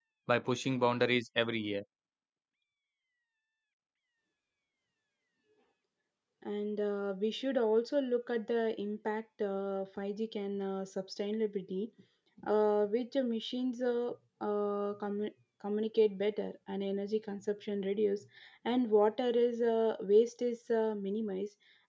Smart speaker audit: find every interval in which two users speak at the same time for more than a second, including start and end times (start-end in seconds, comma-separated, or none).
none